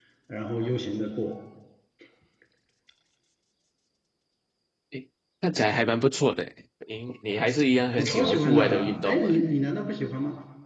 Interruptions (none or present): present